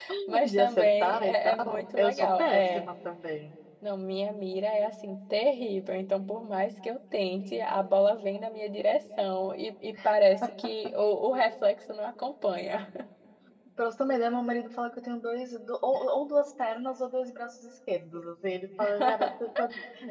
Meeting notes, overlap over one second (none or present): present